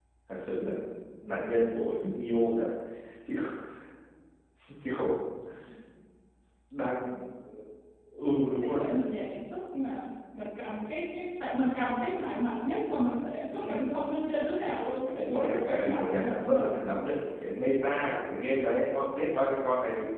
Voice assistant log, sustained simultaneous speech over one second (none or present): present